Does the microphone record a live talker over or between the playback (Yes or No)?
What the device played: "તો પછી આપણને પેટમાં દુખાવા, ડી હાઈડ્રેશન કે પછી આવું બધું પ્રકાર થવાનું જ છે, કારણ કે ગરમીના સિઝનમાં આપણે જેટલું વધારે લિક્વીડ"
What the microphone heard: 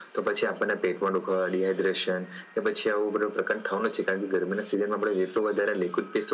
No